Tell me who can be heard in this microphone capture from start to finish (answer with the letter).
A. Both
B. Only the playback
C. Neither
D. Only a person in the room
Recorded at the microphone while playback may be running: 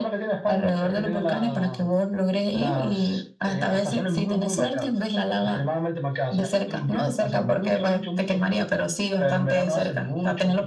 B